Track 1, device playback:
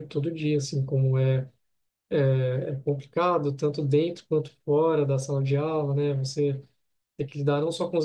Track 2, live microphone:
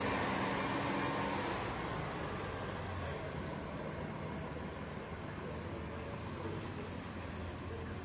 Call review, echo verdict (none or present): none